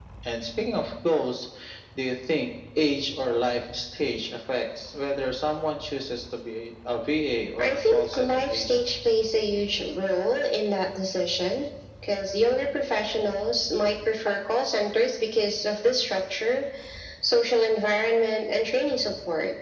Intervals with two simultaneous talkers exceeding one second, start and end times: 7.6-8.8

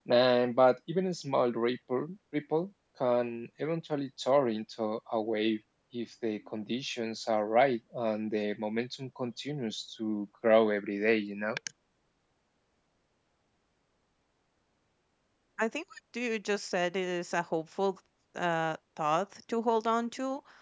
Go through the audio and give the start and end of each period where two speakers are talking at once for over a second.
none

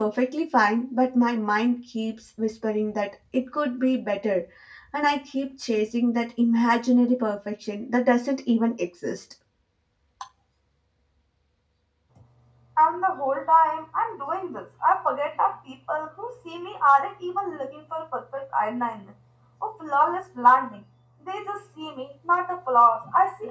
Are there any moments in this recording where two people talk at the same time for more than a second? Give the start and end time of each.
none

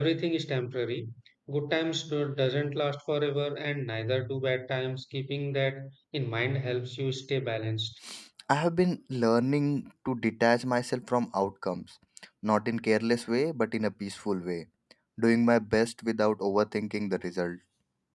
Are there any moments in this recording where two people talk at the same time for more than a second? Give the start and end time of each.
none

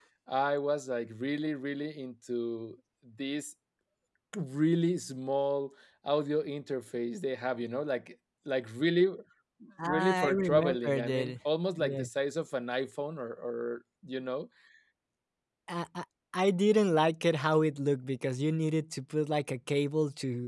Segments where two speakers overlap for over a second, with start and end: 9.8-11.3

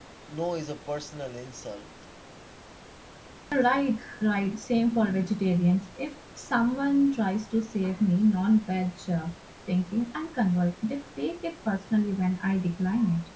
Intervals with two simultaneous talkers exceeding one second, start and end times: none

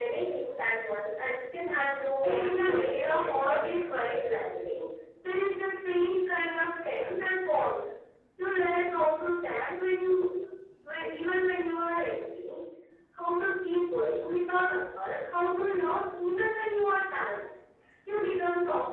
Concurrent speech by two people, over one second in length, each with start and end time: 2.2-3.8

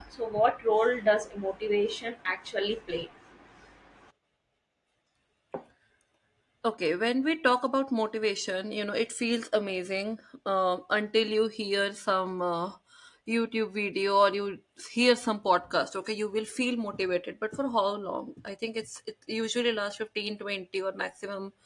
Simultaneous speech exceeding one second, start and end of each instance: none

